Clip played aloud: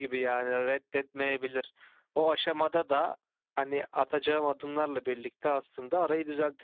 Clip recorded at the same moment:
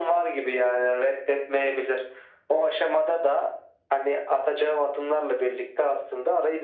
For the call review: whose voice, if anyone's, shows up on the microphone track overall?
echo only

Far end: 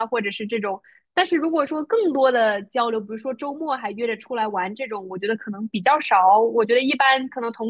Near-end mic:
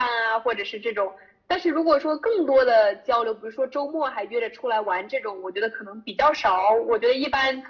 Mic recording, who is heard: echo only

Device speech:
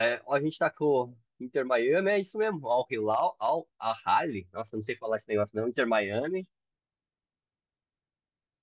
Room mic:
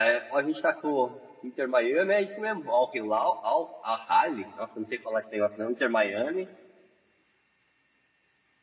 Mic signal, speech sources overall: echo only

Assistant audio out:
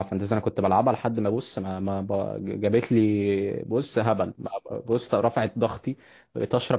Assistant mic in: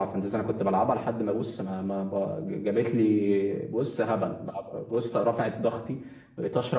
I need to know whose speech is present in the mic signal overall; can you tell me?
echo only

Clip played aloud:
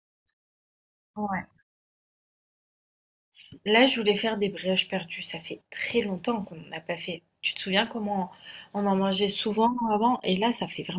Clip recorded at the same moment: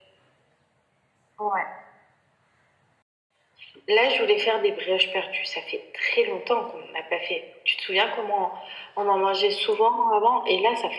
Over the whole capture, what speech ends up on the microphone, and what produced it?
echo only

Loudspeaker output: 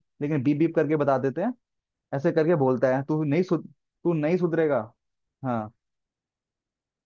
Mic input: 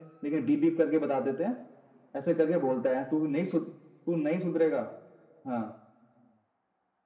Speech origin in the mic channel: echo only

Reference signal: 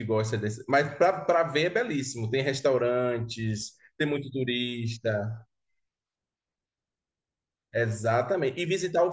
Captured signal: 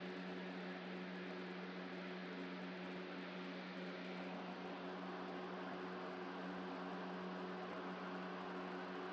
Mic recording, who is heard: neither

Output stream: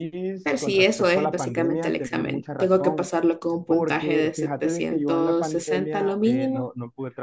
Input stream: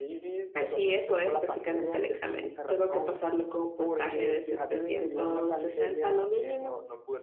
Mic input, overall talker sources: echo only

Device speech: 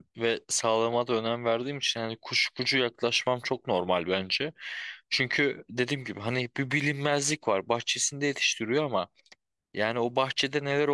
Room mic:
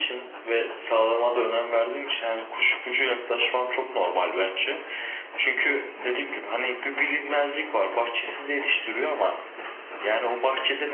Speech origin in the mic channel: echo only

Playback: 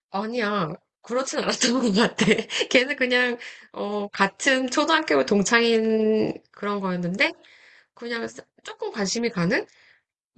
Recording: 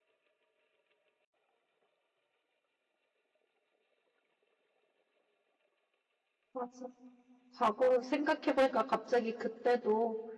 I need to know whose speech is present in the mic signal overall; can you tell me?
user only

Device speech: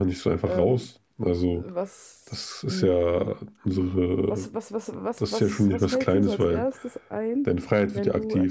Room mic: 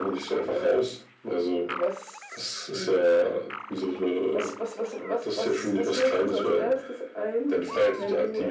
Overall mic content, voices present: echo only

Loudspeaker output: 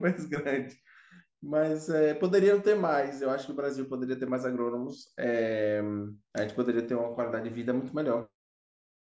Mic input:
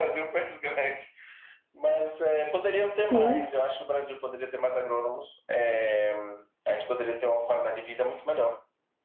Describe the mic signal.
both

